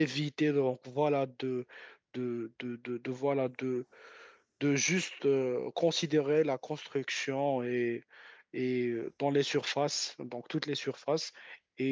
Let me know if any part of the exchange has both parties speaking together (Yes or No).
No